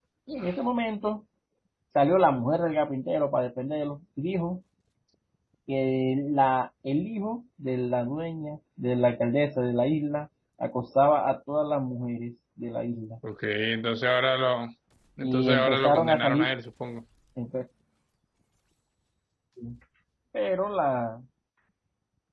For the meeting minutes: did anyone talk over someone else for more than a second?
Yes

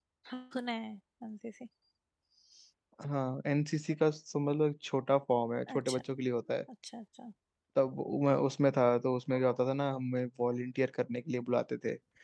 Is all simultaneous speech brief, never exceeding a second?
Yes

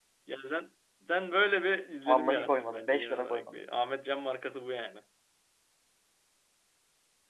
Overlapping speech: Yes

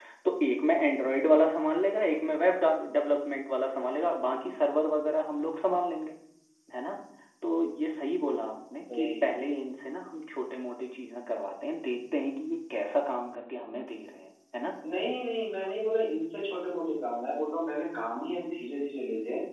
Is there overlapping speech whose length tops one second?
No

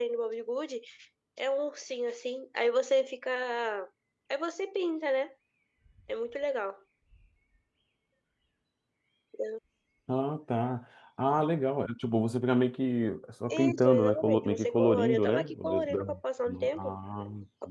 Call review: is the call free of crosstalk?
No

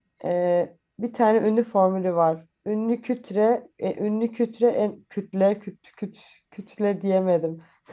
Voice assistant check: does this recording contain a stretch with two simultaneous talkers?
No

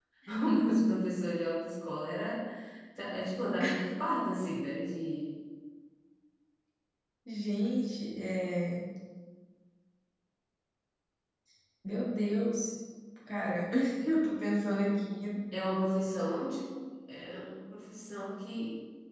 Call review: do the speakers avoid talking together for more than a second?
Yes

